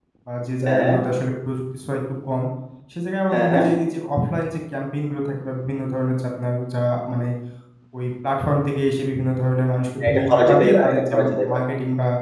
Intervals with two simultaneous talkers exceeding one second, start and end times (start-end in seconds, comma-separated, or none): 10.1-11.7